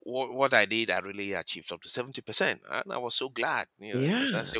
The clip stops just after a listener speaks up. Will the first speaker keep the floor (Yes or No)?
No